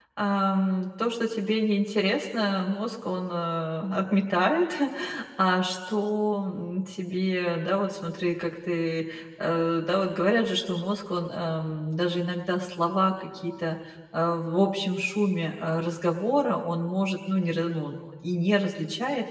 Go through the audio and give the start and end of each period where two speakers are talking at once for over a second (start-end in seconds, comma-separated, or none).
none